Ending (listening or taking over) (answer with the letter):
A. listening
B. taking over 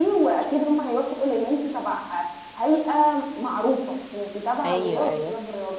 B